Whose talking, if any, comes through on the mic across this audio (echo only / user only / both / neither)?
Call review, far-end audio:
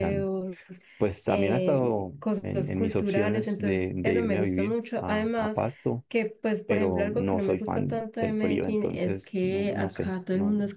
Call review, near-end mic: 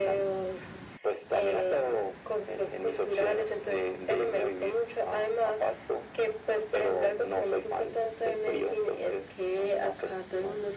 echo only